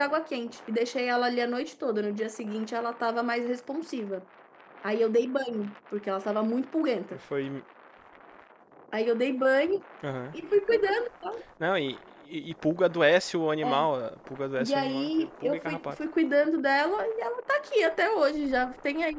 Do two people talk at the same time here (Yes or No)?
Yes